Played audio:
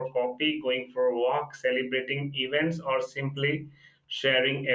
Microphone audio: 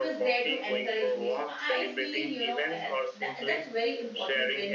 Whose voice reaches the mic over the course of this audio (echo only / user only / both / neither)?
both